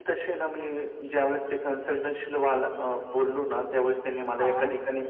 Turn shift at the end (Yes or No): No